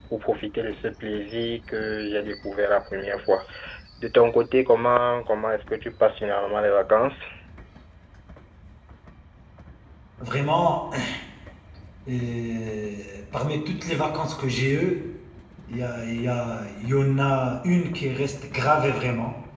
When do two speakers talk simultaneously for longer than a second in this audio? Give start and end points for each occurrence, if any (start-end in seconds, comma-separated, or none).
none